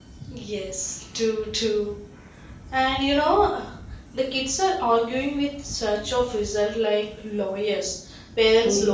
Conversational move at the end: listening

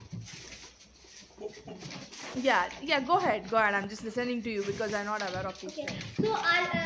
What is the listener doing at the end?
taking over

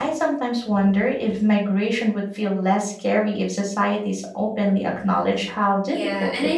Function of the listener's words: taking over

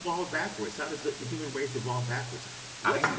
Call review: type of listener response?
listening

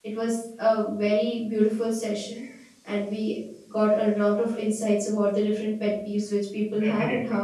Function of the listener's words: listening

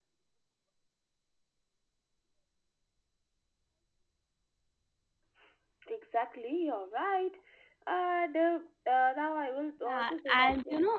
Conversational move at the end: taking over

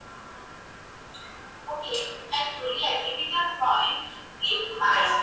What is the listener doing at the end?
listening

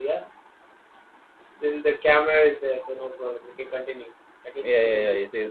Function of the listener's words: taking over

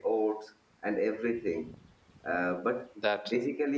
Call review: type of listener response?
listening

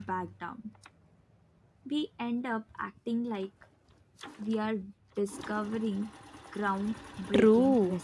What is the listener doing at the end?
taking over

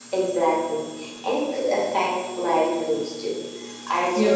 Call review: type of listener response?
listening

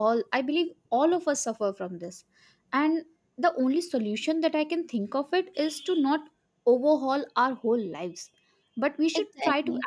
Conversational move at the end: listening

